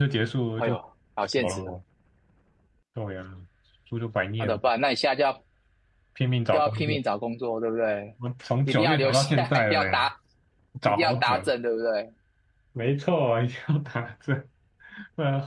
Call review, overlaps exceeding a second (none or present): present